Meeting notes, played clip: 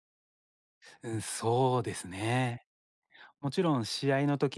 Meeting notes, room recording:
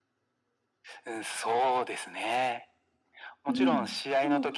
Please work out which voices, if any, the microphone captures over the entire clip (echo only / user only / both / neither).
both